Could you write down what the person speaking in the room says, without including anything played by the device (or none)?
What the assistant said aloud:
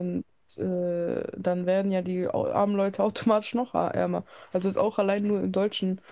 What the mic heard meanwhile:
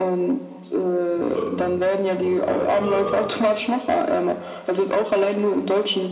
Und dann macht halt äh, ja,